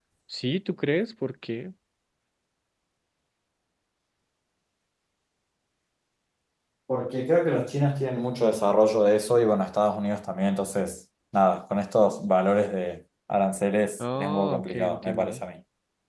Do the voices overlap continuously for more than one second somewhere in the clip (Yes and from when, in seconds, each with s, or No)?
Yes, from 14.0 s